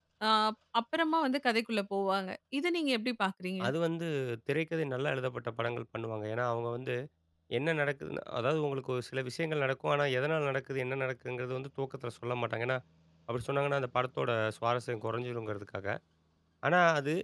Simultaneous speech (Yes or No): No